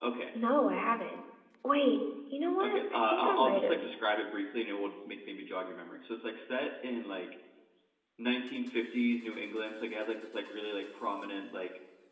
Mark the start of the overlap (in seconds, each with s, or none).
2.6 s